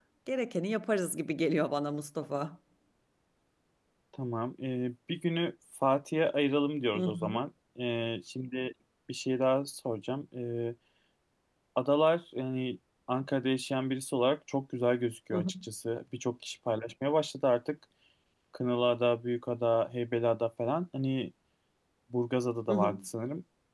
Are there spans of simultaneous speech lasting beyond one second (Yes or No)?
No